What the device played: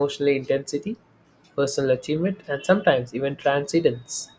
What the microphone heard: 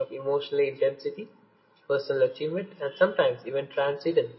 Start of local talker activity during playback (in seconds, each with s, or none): none